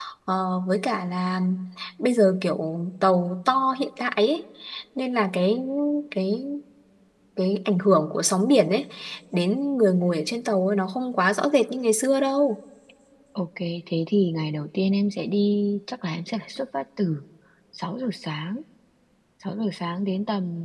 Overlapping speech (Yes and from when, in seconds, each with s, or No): No